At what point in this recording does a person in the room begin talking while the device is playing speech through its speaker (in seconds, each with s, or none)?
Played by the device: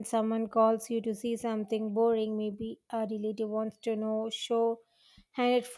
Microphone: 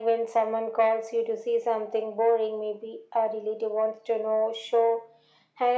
none